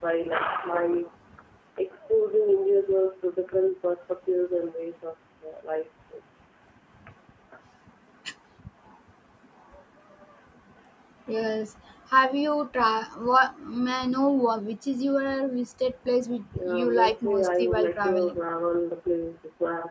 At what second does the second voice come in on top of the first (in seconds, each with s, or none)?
16.5 s